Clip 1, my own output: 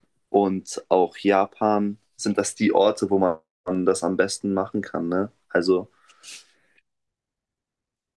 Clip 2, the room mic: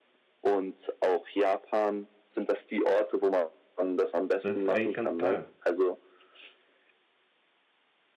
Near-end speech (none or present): present